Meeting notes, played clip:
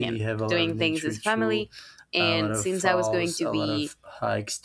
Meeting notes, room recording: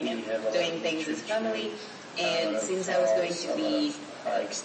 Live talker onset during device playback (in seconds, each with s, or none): none